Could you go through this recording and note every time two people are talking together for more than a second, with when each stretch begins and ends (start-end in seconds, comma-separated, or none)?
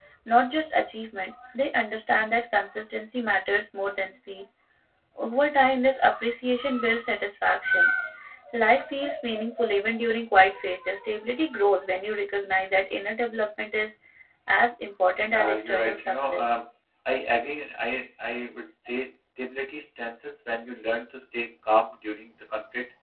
15.3-16.6